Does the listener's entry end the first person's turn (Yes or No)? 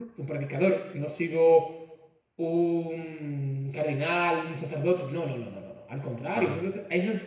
No